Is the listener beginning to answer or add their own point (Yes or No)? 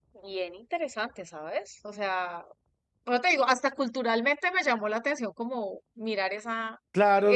Yes